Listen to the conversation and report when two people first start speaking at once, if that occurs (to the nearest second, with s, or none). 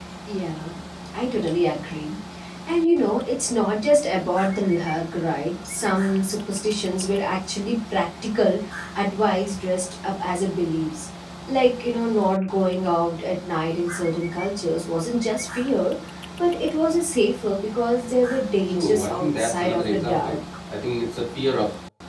19 s